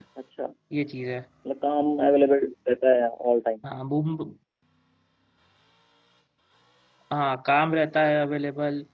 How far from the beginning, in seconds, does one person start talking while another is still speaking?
none

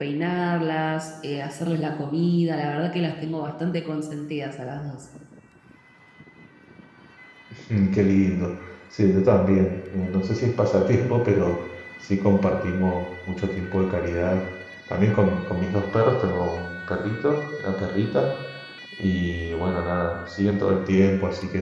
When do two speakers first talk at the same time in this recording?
none

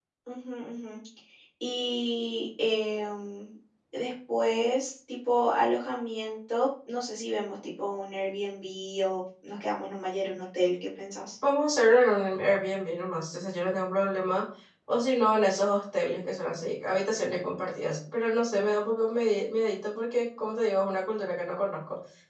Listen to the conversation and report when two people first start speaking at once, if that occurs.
none

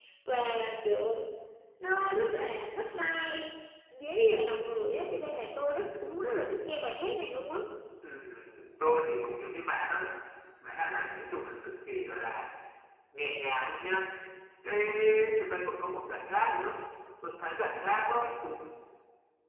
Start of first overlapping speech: none

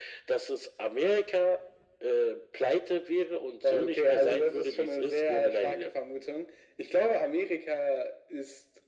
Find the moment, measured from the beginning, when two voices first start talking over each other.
4 s

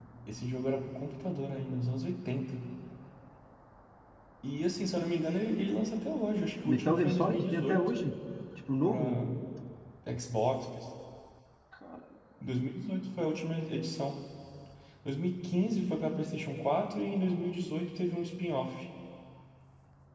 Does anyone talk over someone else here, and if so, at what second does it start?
7 s

